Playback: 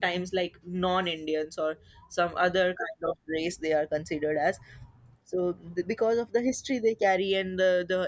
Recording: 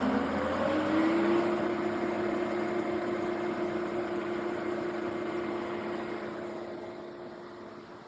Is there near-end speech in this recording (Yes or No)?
No